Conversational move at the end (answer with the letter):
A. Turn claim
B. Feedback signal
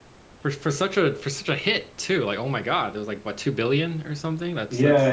A